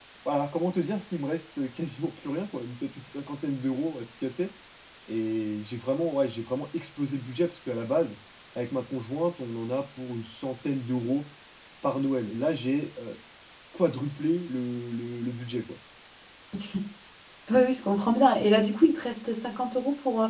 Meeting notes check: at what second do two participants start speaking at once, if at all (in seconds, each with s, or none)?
none